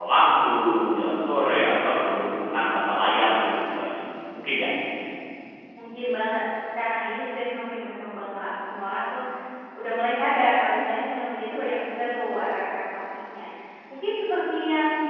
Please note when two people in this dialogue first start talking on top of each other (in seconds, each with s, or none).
none